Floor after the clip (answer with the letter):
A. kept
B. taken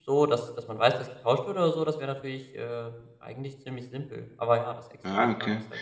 B